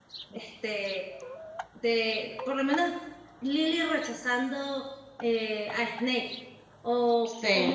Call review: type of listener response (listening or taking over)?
listening